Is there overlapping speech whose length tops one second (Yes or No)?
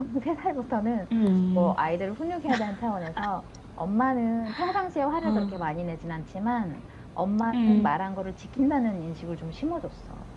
No